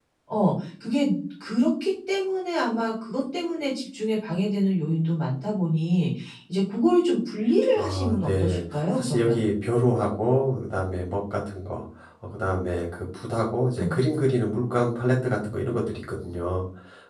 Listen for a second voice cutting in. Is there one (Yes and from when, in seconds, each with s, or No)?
Yes, from 7.8 s